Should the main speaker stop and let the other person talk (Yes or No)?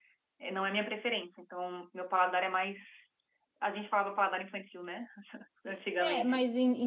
Yes